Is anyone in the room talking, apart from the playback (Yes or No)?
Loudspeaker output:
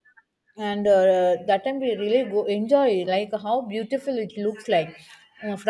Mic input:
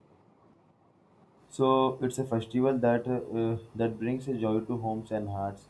Yes